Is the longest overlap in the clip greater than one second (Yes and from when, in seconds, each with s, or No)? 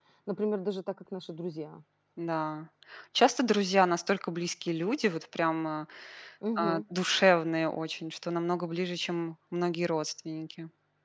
No